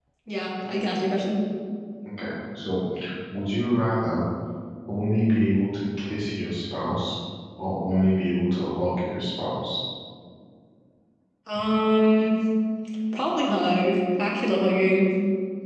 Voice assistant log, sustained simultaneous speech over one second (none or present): none